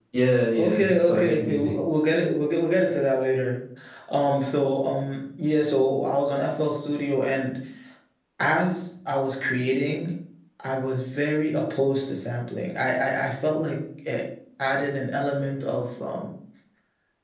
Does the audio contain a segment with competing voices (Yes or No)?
Yes